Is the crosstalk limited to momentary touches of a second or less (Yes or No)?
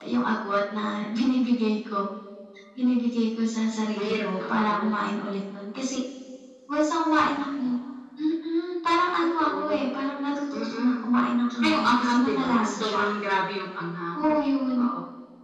No